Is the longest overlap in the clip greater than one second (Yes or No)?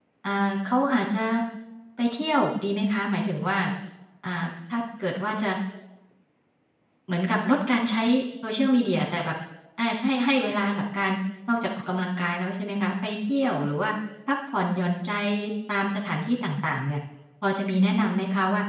No